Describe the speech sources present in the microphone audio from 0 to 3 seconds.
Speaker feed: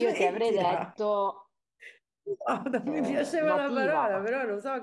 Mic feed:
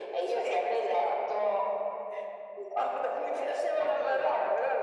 echo only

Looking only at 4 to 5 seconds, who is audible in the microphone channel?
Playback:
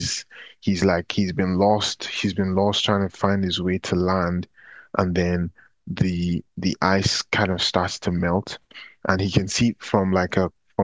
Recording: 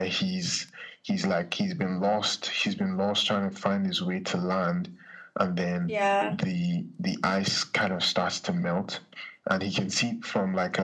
echo only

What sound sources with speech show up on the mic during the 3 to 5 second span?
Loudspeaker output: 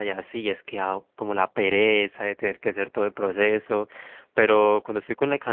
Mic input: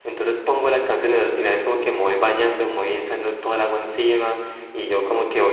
user only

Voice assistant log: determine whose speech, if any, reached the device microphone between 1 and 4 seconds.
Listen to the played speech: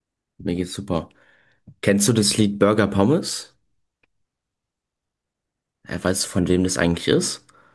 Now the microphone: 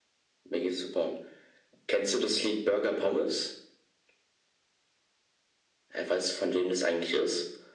echo only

